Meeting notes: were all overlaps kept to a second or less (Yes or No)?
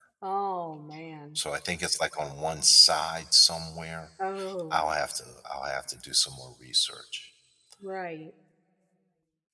Yes